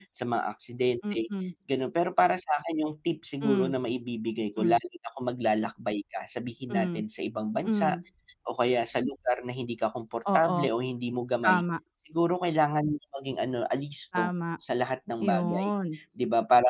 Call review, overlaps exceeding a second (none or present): none